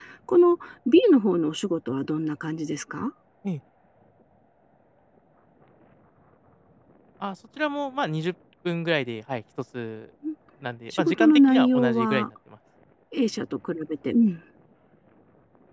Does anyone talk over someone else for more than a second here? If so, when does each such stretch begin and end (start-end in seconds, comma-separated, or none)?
11.0-12.3